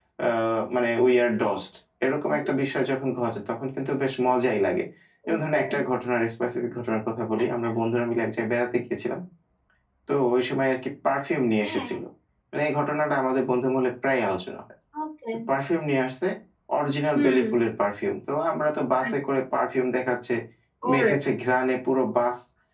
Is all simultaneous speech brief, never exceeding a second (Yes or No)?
Yes